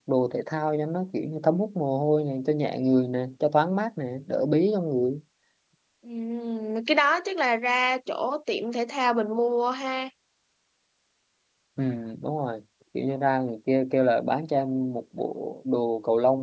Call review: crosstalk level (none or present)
none